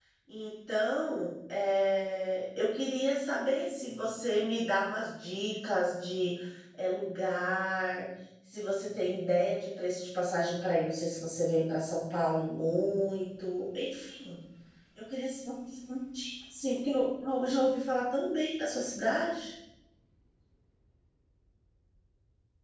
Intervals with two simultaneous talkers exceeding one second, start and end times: none

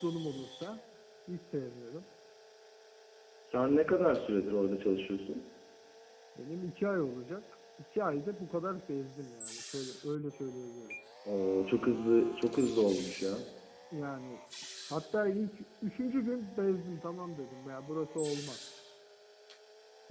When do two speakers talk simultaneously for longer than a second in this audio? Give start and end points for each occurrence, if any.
none

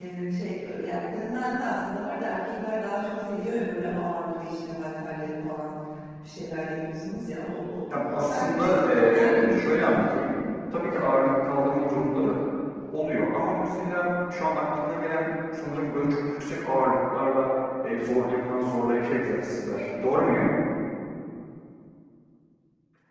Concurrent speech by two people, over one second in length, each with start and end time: 7.9-10.2

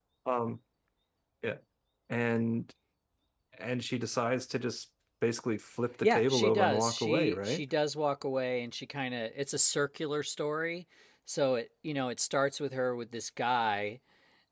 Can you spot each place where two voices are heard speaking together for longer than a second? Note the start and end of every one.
6.0-7.6

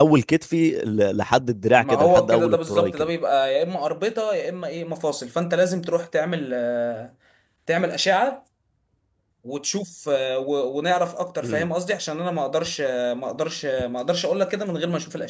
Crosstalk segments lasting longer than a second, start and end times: 1.8-3.0

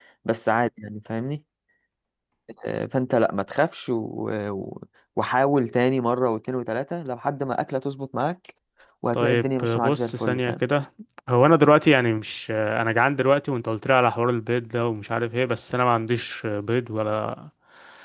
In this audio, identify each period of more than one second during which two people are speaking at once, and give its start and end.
9.1-10.5

